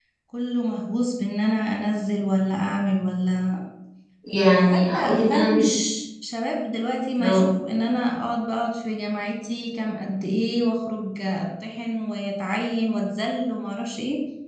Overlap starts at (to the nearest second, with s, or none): 4 s